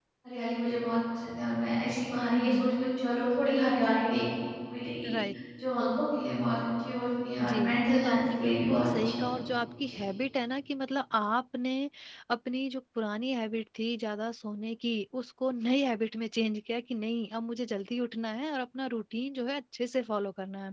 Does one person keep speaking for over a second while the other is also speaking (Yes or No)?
Yes